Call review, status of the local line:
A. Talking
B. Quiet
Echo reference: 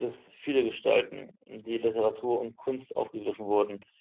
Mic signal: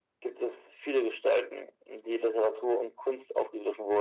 B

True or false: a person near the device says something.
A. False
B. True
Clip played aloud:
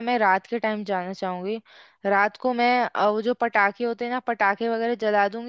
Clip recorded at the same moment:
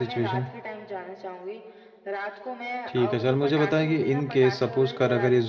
B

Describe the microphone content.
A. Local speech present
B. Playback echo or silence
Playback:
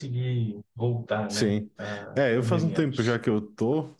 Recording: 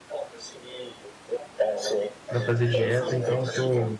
A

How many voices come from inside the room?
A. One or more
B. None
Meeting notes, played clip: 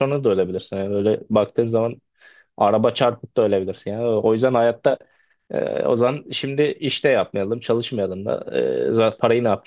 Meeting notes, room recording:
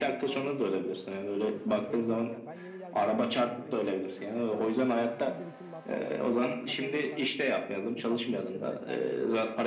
A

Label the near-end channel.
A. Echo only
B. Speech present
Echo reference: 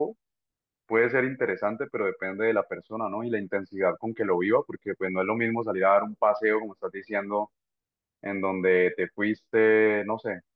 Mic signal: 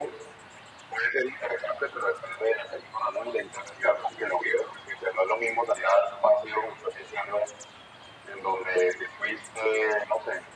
A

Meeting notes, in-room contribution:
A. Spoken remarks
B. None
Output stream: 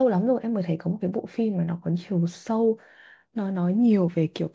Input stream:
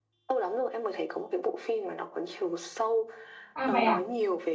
A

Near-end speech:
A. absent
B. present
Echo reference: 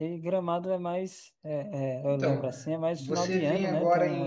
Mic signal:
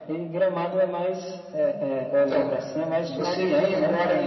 A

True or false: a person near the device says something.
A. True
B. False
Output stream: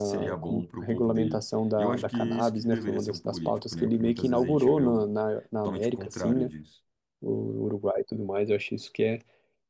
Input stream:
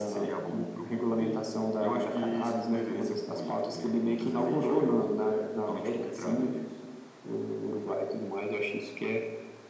B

